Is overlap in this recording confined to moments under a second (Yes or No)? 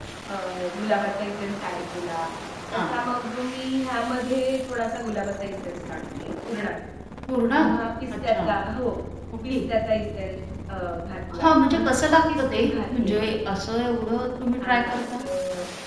No